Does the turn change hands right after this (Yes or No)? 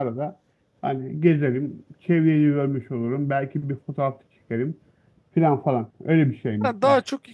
Yes